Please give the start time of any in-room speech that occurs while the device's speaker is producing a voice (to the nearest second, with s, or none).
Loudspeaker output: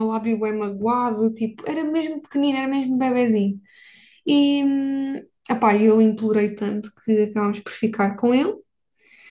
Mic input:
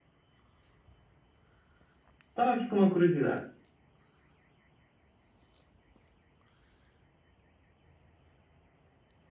2 s